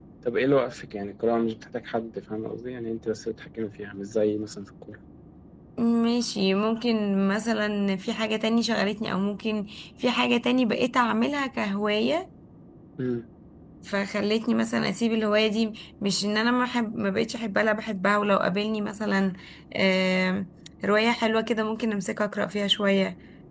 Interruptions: none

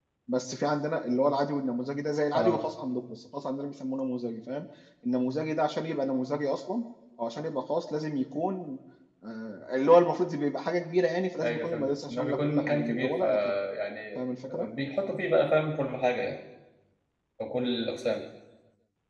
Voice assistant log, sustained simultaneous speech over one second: present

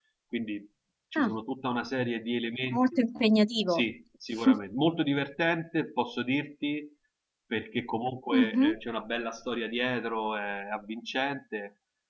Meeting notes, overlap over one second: none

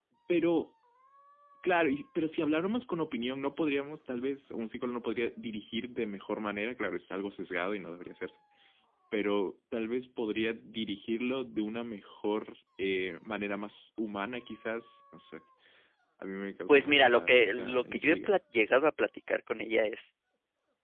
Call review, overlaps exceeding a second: present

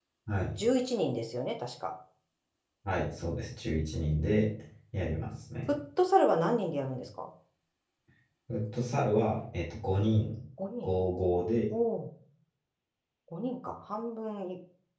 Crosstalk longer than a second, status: none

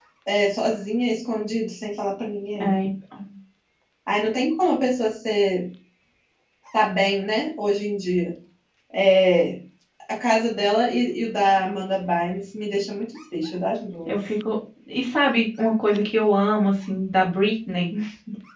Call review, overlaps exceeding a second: none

